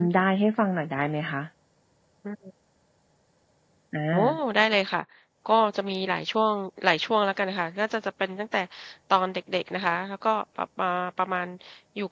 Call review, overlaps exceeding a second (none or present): none